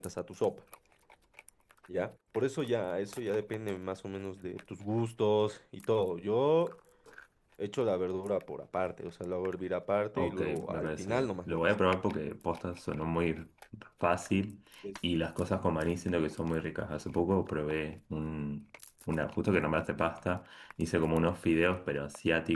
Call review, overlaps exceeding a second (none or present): present